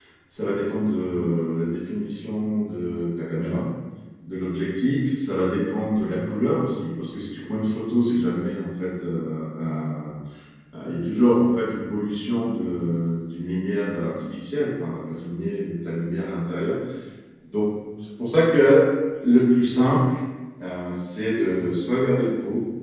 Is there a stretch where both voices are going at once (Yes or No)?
No